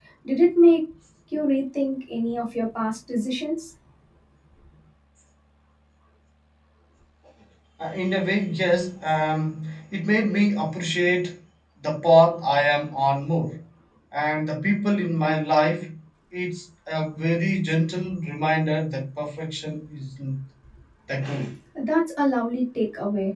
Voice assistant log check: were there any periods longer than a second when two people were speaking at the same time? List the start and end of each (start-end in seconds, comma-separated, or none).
none